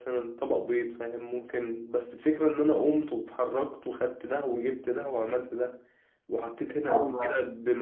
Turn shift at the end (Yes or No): No